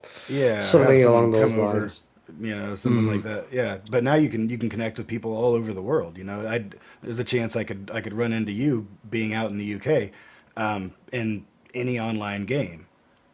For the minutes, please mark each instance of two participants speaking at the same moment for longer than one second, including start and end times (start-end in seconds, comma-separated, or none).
0.6-1.9